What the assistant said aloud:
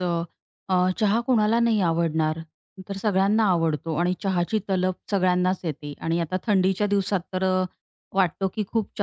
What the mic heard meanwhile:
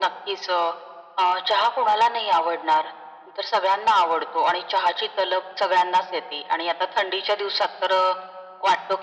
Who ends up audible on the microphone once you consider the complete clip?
echo only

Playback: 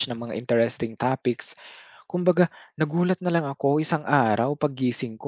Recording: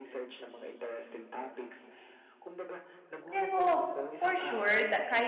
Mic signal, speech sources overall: both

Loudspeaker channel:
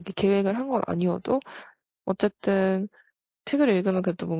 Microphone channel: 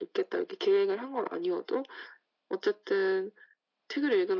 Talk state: echo only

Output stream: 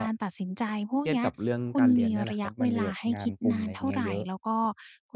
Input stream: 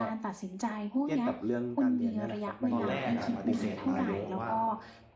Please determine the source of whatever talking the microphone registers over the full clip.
both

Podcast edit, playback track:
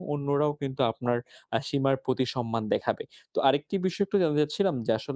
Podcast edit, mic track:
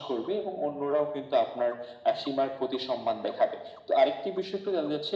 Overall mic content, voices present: echo only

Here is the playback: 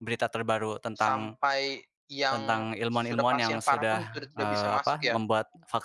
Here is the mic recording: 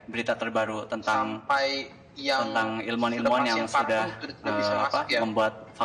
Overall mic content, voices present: echo only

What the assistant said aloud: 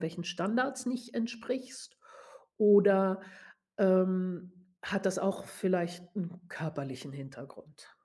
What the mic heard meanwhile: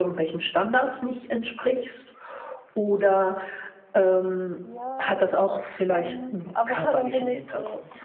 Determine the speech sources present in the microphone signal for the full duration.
both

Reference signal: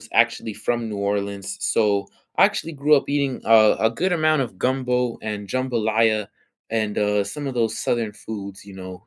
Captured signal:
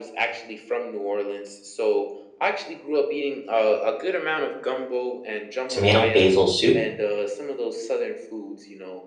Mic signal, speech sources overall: both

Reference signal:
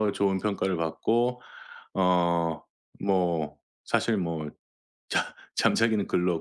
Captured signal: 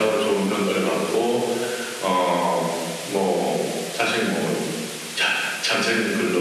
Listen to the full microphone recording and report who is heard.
echo only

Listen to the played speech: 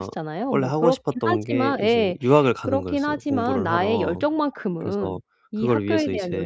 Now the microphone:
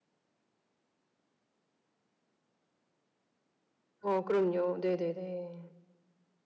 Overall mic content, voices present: user only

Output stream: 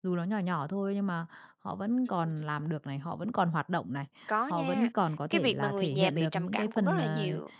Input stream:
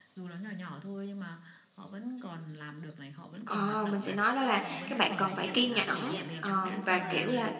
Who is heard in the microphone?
both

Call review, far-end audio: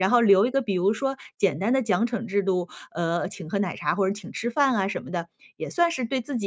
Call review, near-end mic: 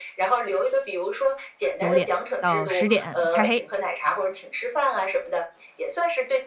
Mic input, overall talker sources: both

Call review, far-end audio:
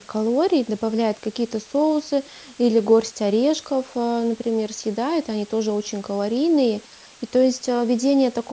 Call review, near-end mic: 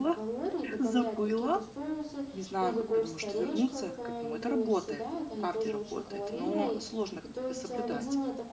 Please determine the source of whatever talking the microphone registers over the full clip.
both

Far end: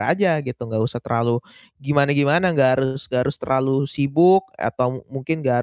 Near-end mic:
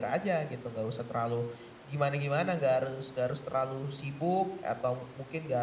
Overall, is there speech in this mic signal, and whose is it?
echo only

